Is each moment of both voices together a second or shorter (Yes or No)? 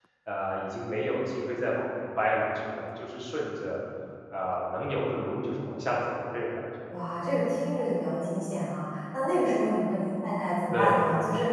Yes